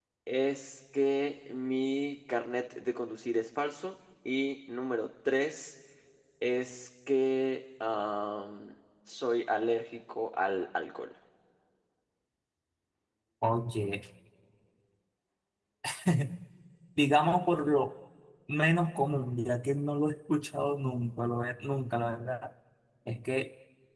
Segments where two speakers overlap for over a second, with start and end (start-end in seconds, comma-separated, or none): none